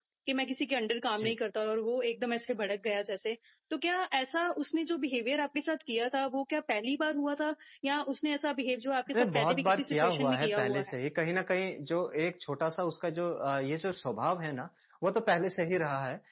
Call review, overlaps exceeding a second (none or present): present